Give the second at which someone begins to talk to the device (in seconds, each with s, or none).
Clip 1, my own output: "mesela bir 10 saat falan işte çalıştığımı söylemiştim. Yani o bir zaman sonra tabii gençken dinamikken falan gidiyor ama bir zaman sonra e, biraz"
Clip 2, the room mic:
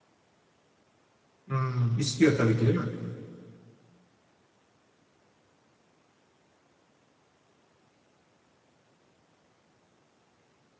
1.5 s